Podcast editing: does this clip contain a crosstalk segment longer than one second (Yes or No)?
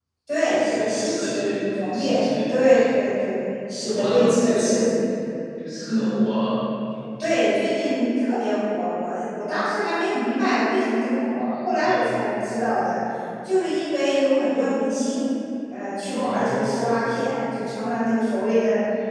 Yes